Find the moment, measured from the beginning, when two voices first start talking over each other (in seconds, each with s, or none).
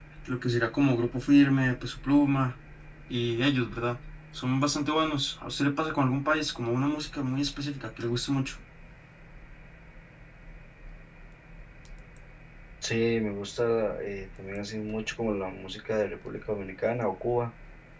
none